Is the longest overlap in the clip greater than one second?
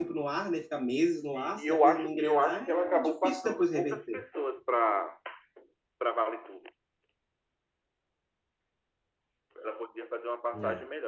Yes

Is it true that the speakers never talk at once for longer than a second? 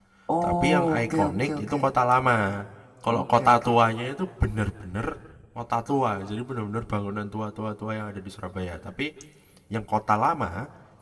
No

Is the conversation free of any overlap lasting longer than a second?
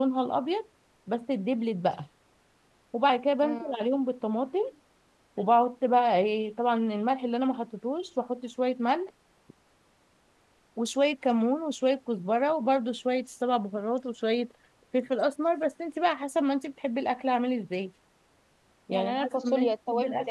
No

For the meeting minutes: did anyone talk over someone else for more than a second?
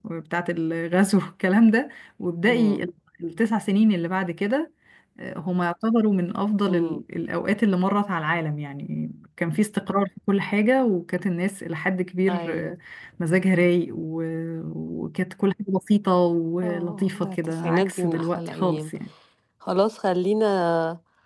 Yes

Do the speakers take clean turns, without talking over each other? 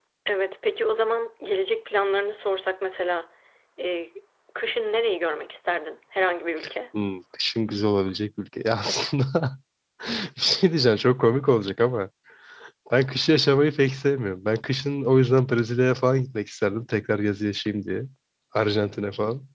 Yes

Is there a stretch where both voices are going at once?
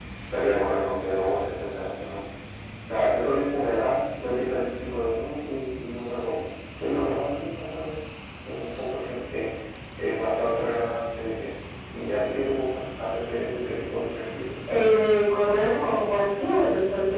No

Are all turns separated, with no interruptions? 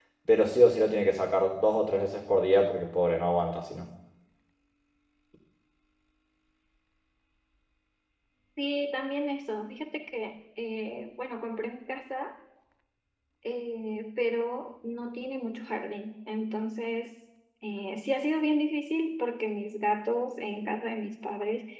Yes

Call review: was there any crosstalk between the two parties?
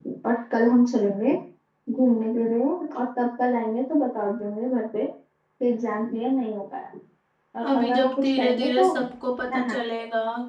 Yes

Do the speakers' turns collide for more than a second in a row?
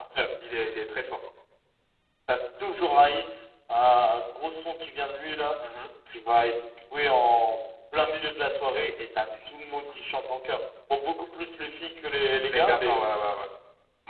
No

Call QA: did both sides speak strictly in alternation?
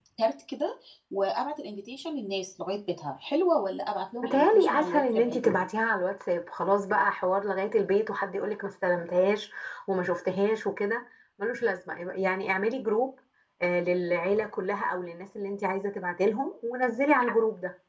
No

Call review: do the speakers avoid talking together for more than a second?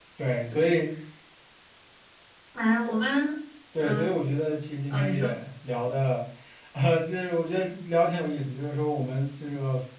Yes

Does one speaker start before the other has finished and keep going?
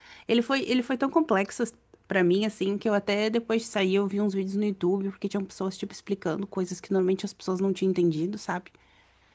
No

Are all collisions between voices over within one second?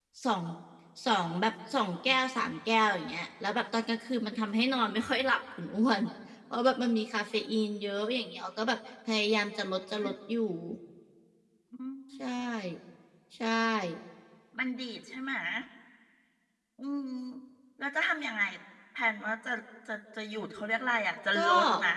Yes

